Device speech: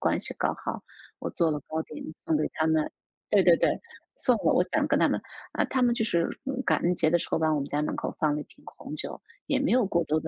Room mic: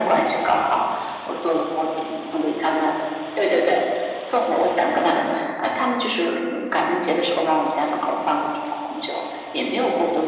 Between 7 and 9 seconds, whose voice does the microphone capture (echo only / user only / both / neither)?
echo only